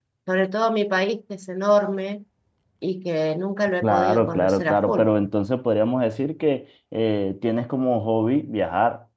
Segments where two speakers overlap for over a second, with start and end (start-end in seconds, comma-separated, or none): 3.8-5.0